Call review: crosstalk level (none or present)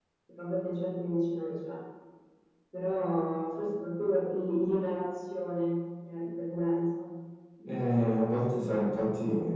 none